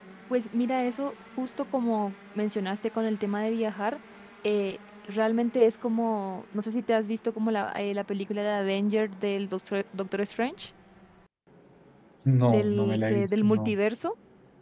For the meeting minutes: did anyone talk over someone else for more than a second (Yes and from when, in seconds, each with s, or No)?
Yes, from 12.5 s